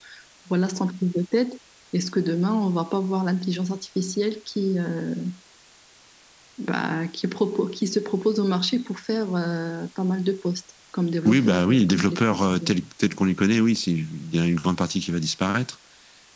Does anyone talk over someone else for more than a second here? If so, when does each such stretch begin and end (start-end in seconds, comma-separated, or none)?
11.2-12.7